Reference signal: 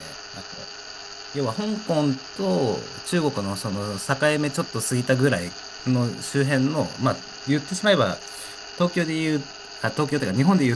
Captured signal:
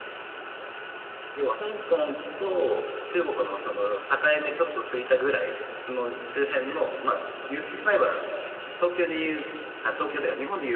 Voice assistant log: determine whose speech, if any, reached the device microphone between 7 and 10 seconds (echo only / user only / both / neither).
echo only